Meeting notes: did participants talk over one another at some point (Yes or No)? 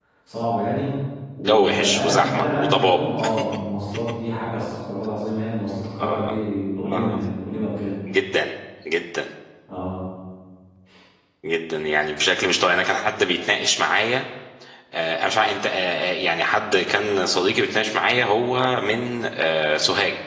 Yes